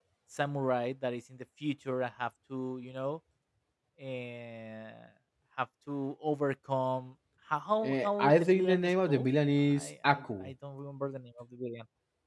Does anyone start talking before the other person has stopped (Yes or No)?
Yes